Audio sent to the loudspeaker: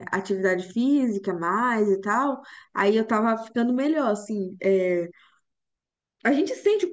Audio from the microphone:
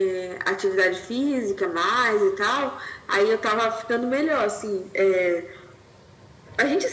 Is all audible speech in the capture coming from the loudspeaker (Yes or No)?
Yes